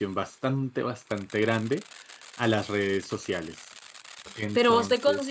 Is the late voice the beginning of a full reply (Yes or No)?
Yes